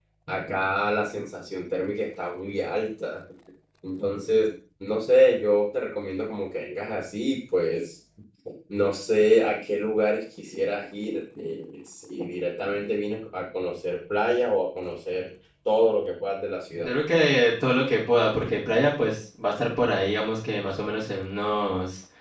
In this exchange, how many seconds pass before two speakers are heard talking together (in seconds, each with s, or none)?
none